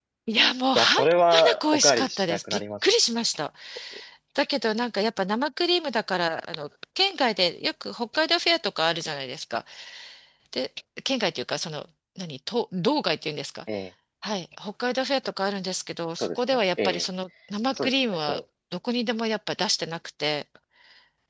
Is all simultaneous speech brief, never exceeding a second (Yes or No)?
No